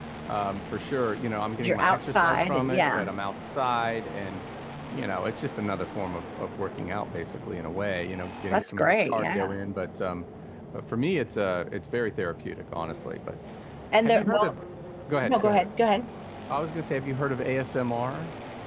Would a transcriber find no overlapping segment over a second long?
No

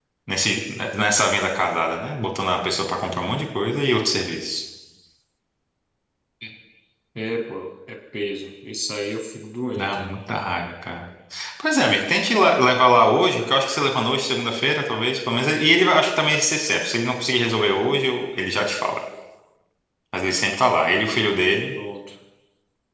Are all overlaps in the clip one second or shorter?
Yes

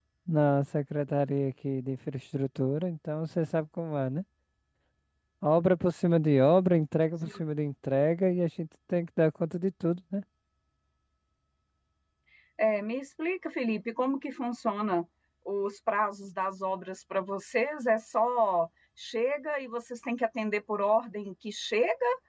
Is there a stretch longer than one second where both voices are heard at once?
No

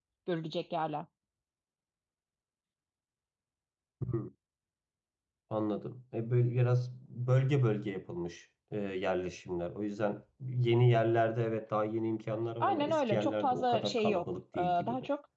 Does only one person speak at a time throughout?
No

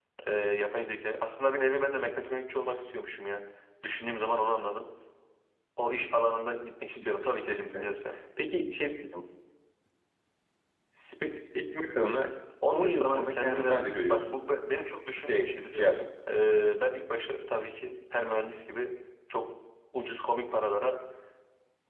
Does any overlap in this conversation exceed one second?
Yes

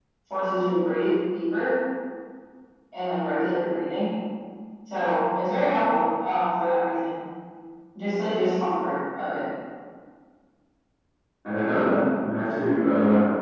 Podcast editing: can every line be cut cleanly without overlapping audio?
Yes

